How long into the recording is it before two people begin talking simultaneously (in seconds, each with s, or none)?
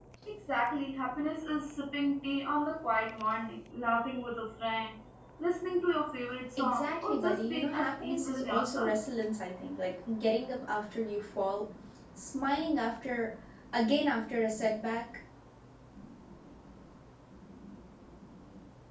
6.6 s